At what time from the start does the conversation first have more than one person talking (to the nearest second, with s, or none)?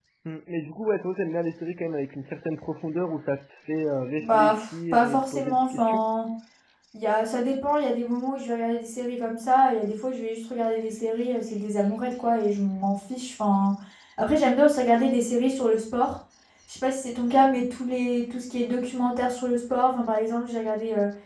4 s